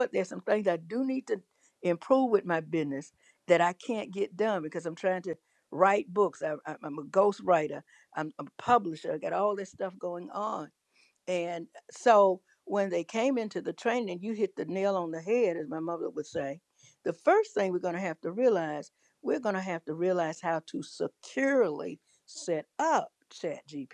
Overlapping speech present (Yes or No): No